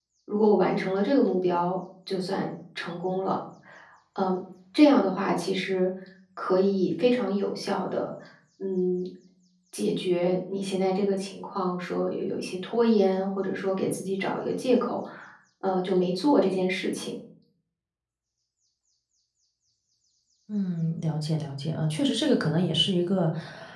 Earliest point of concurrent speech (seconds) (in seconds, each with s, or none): none